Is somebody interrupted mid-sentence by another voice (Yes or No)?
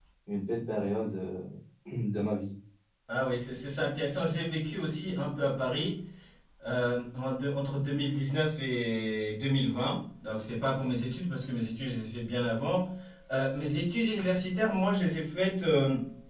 No